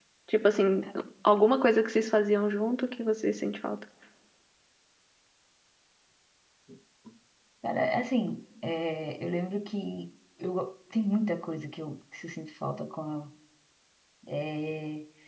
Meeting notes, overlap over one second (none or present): none